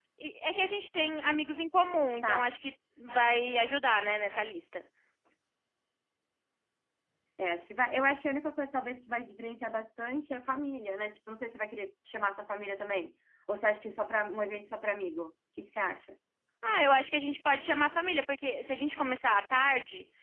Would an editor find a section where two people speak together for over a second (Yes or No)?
No